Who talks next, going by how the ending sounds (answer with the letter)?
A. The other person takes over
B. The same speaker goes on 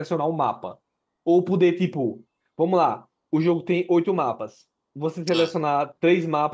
B